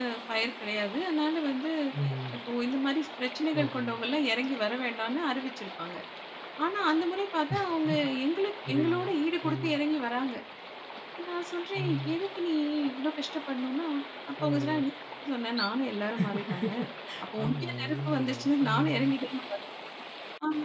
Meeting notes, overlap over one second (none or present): present